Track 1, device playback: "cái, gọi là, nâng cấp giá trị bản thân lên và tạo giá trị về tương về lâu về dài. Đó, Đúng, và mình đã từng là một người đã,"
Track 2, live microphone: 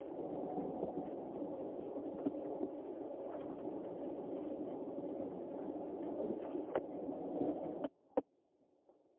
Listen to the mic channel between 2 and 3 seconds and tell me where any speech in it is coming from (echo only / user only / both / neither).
neither